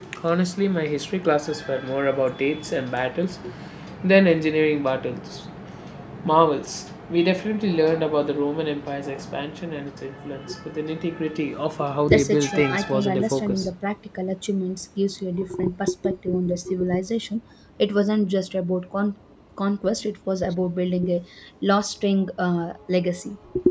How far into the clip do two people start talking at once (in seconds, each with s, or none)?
12.1 s